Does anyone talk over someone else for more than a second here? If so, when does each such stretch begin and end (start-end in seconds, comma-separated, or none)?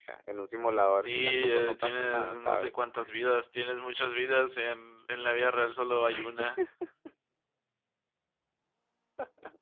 1.0-2.7